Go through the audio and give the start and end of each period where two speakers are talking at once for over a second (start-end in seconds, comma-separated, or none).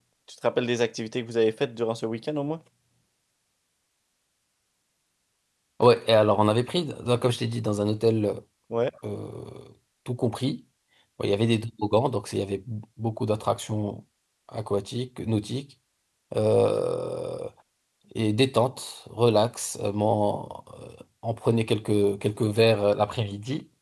none